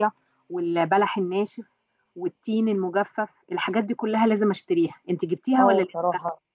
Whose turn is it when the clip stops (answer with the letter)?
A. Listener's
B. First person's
A